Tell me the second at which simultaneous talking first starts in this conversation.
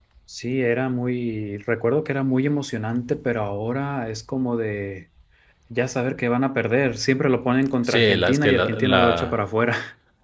8 s

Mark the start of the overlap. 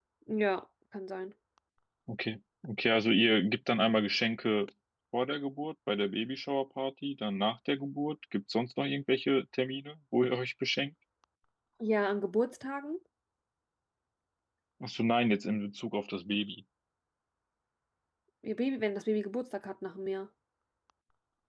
none

